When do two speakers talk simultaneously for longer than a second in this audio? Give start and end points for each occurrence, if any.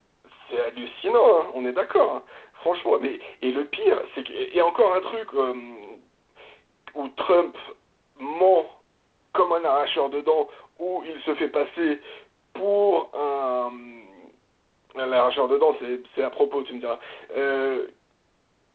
none

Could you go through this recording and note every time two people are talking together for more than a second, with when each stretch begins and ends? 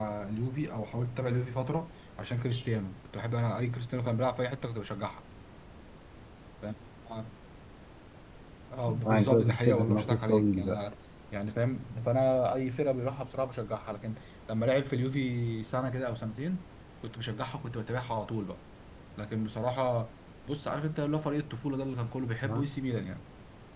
9.1-10.8

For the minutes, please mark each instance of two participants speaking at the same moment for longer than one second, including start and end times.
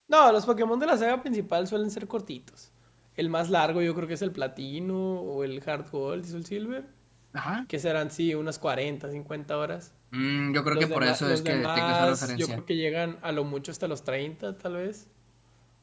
10.7-12.6

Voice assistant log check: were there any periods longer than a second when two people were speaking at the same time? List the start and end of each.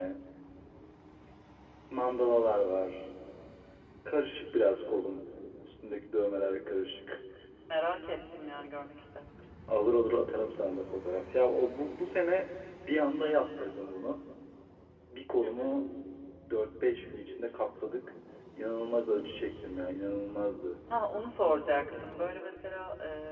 none

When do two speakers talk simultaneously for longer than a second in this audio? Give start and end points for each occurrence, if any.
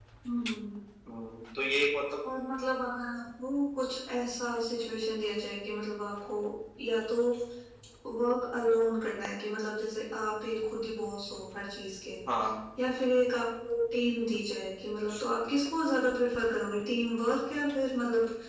none

